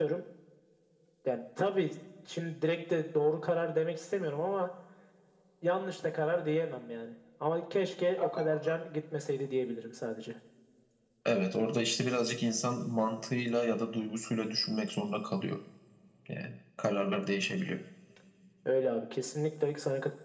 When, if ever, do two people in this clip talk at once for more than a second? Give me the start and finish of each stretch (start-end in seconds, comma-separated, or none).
none